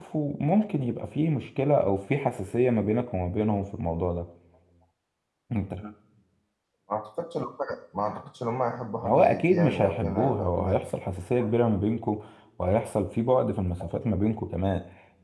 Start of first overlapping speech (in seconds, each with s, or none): 9.0 s